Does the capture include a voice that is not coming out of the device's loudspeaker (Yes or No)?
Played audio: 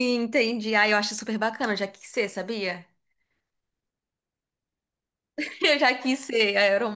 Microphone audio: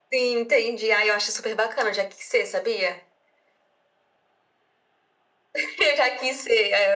No